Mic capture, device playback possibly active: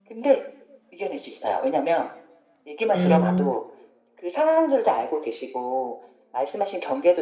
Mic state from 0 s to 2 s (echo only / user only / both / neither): echo only